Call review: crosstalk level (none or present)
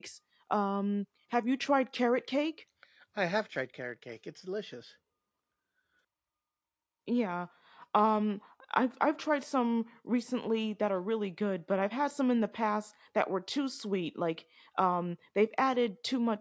none